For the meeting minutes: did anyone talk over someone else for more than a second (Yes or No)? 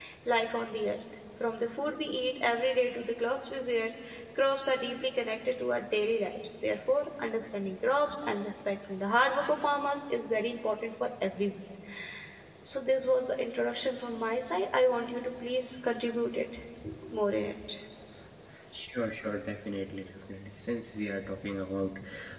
No